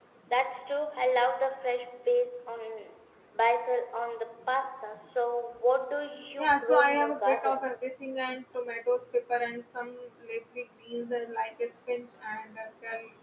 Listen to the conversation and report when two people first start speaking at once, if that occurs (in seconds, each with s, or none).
6.4 s